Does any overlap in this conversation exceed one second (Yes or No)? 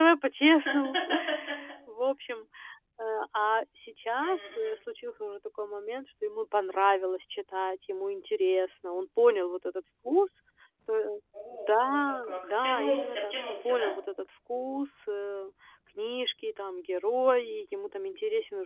Yes